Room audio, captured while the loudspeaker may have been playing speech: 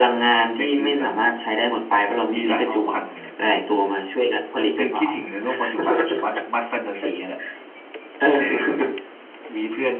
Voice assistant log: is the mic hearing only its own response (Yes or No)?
Yes